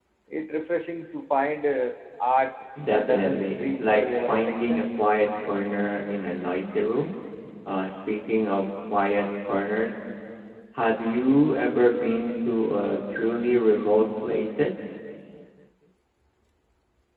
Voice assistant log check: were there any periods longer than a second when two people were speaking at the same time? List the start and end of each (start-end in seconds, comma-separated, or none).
2.9-4.8